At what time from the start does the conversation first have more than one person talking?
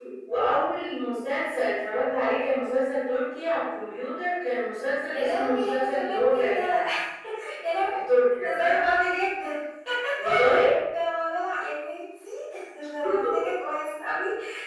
5.1 s

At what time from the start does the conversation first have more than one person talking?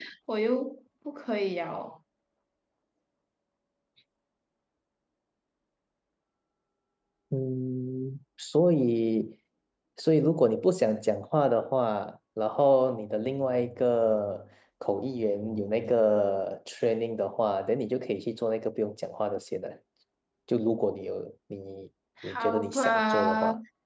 22.2 s

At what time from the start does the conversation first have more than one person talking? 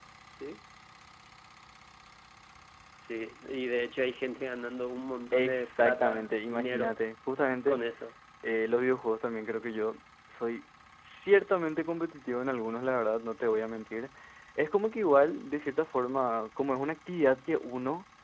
5.3 s

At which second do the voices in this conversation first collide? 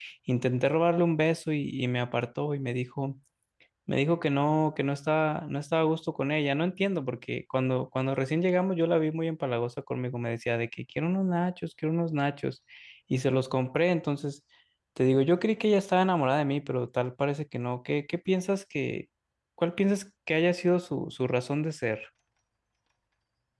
none

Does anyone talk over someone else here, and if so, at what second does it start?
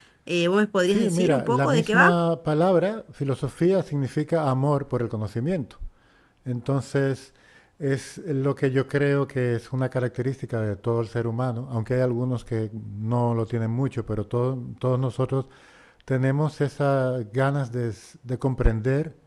0.9 s

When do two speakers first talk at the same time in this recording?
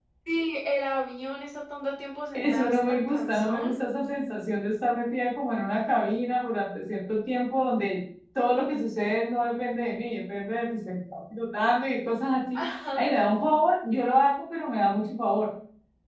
2.3 s

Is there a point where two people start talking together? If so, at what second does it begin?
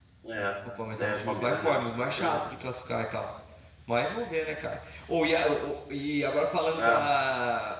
1.0 s

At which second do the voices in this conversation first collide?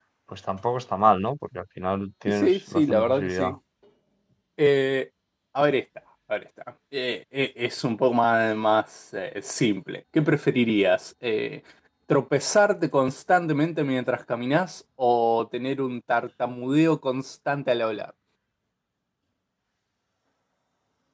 2.3 s

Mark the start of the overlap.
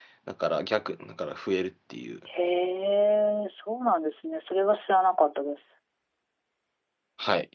none

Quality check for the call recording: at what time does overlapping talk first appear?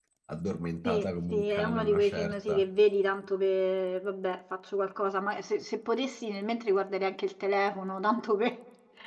0.8 s

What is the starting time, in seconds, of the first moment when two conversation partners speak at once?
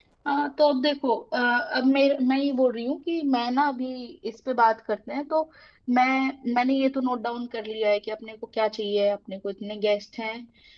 none

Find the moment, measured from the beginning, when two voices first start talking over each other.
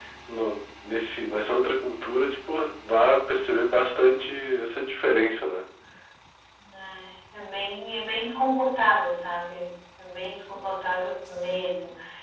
none

